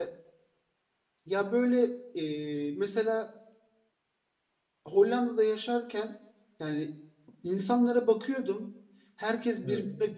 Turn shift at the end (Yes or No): No